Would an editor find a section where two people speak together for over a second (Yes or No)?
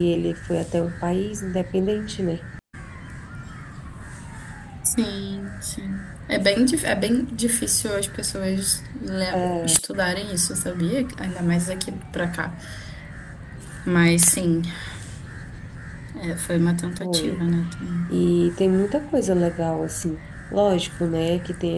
No